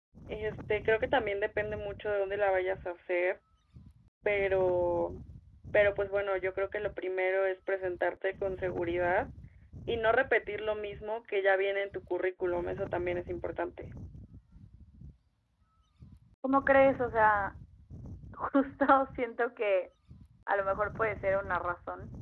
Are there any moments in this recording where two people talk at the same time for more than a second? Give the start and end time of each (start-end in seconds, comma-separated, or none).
none